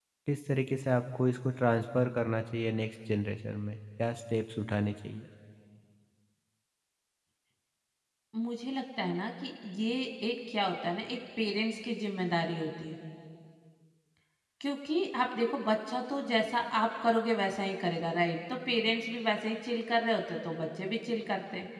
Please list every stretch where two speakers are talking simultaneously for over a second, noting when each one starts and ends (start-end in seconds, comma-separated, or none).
none